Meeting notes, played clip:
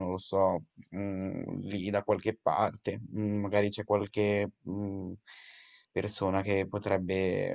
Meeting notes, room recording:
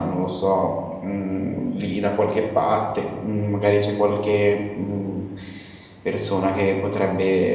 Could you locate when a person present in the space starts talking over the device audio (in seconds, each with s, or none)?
none